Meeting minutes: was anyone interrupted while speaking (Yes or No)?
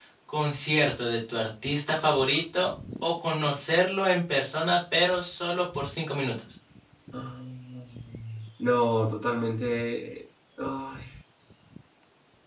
No